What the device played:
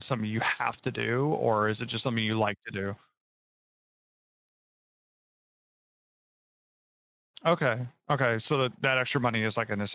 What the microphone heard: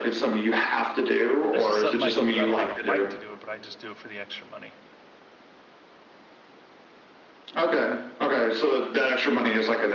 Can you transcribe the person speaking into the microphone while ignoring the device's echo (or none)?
it's just something I do, I don't I don't like to do it, but I just do it for the extra money,